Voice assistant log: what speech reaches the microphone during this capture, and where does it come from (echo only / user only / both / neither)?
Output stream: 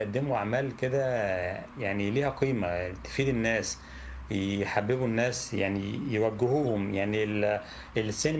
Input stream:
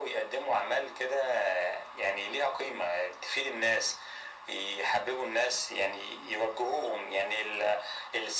echo only